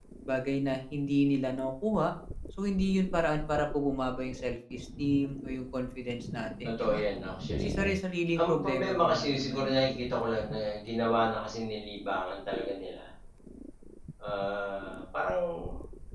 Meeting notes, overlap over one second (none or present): present